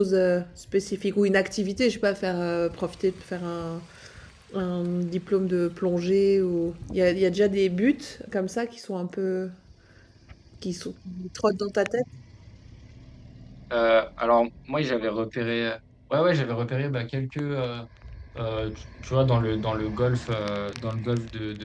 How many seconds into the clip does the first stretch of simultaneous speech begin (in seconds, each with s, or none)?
none